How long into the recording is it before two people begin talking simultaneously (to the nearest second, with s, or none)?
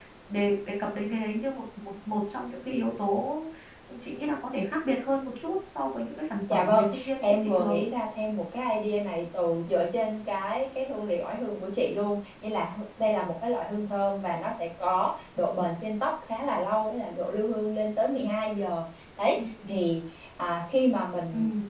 7 s